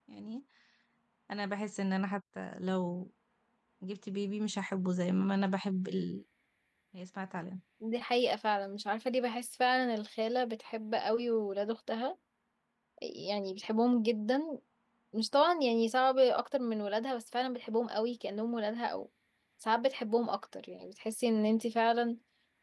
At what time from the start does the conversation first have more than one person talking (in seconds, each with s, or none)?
none